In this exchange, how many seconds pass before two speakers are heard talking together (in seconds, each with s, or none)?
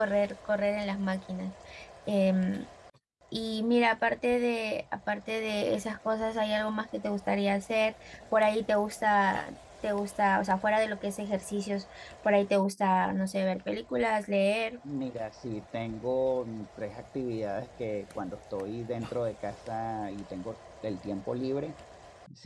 none